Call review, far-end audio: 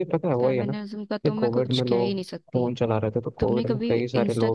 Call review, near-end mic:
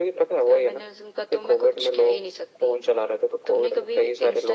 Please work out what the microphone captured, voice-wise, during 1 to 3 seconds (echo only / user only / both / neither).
echo only